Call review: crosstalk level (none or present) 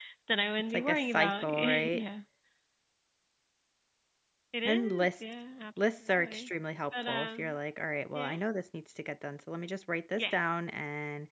present